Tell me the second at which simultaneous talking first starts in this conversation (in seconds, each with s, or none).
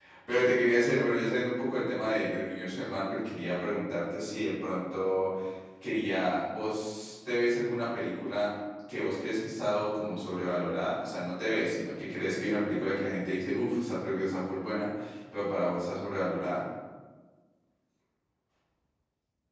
none